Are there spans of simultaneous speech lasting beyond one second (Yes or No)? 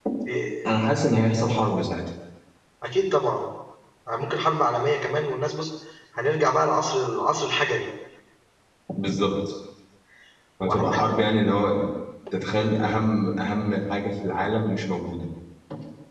No